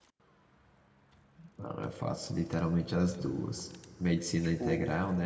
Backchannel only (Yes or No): Yes